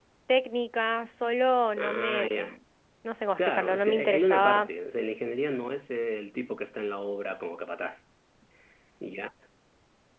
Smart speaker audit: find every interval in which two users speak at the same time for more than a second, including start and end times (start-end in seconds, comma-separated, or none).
3.4-4.7